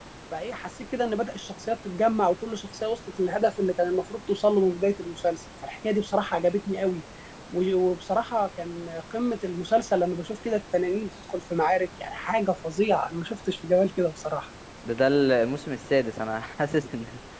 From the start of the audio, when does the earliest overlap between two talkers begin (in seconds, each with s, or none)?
none